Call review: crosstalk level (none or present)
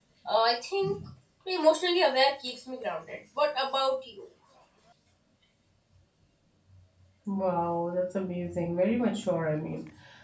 none